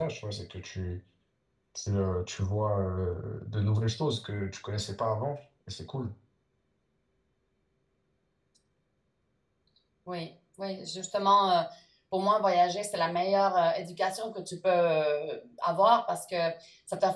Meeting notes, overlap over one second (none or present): none